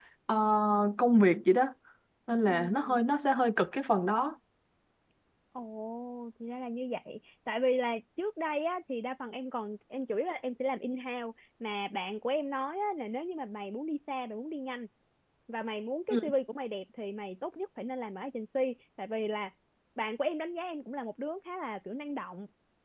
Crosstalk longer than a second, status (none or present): none